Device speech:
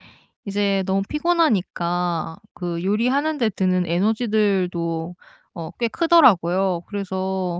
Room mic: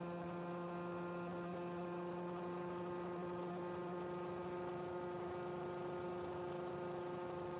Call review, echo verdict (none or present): none